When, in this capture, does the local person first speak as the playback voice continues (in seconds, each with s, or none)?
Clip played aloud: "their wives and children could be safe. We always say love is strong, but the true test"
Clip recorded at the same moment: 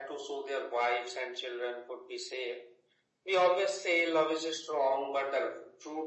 none